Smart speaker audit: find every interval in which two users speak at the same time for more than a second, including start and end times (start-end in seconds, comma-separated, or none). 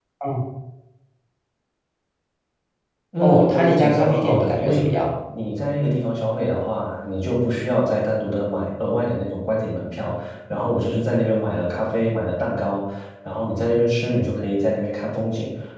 3.2-5.0